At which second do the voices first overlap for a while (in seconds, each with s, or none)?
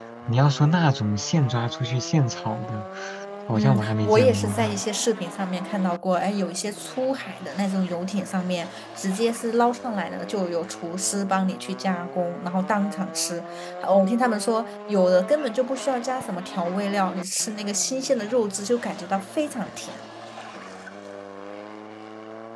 3.5 s